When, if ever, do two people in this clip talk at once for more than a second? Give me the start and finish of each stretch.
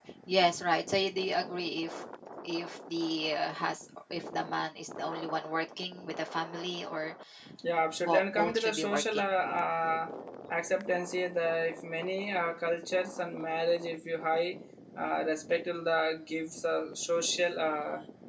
8.0-9.3

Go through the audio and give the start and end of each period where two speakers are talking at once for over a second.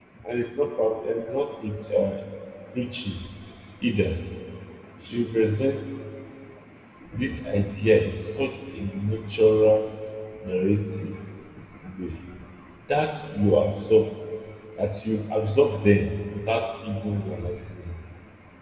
none

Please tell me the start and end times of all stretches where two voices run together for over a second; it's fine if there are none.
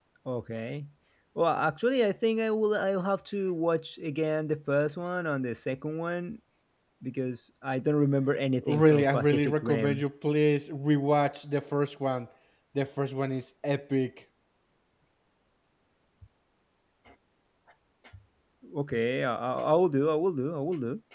8.6-10.0

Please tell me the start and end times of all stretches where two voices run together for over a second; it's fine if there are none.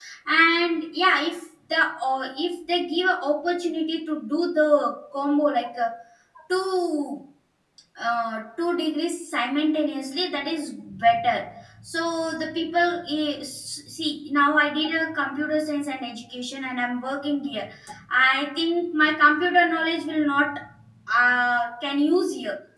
none

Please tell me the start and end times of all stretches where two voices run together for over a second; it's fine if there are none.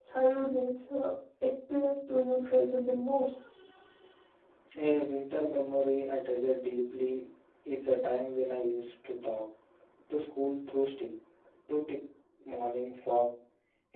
none

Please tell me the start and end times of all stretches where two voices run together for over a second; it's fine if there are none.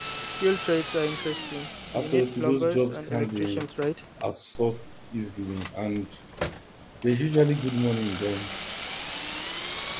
1.9-3.6

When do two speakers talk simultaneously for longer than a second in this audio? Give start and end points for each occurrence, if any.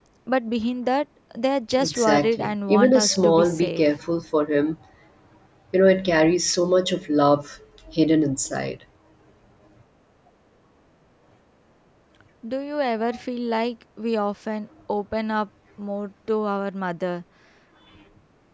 1.8-3.8

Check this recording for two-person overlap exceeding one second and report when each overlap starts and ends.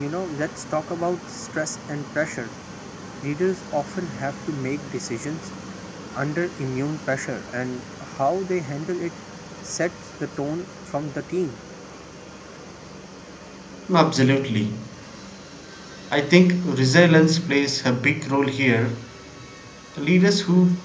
none

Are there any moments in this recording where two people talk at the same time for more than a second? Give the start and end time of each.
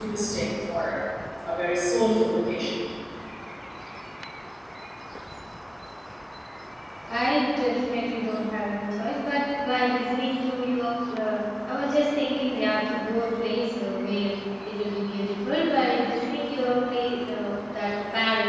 none

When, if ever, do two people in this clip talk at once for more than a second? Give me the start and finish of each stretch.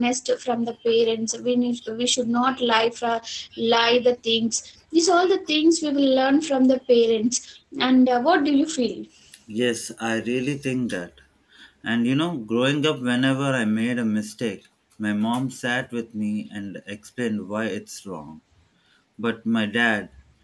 none

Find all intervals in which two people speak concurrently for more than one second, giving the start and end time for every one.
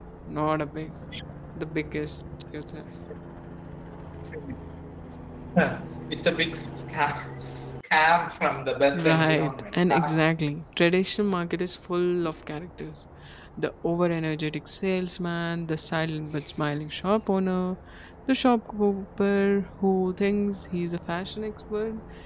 8.9-10.2

